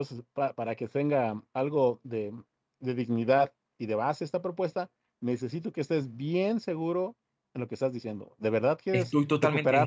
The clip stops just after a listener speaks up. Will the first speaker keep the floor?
No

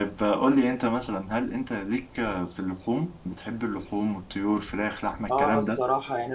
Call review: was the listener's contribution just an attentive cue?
No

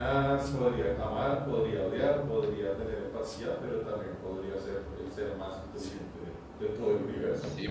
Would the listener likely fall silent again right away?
No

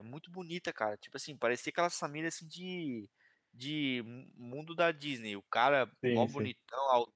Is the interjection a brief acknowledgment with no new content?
Yes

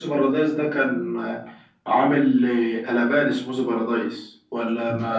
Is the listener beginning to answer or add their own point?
Yes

